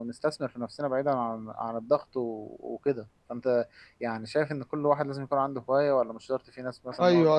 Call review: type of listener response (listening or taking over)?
taking over